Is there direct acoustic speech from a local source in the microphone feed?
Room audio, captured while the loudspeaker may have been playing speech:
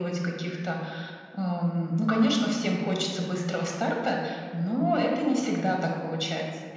No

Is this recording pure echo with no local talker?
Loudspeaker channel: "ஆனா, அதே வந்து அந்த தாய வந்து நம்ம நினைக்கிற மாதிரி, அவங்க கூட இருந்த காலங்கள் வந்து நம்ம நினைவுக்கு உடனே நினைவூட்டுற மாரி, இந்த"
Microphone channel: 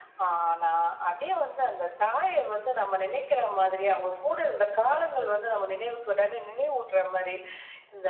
No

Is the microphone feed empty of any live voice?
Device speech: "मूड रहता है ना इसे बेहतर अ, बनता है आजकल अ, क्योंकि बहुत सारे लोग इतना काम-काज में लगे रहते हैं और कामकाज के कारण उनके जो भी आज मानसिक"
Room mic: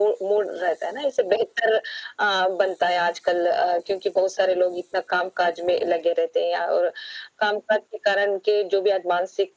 Yes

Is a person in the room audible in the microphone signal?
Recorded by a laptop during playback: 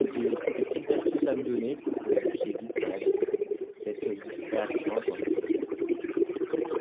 Yes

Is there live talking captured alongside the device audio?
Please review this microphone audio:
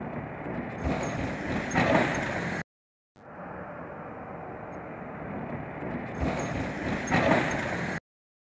No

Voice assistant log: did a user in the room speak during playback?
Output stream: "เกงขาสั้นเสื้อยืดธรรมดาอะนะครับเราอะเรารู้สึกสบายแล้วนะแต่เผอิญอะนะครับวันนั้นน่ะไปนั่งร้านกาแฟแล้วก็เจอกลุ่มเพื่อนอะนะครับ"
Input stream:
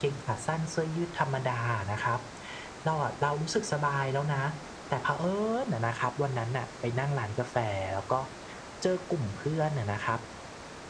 No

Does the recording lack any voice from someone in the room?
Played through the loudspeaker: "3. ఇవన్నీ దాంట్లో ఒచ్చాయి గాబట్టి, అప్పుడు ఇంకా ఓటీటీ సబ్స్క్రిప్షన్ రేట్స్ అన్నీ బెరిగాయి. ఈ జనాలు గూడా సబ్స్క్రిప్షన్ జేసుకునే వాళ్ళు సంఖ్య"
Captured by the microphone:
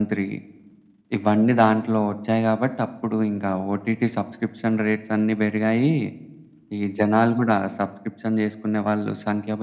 Yes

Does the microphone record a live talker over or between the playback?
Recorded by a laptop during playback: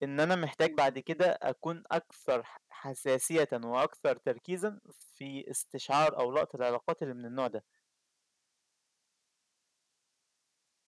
Yes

